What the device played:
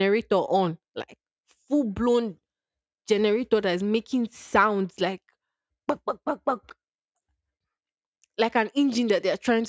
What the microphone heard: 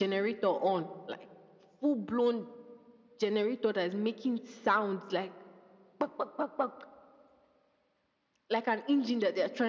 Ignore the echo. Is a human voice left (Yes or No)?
No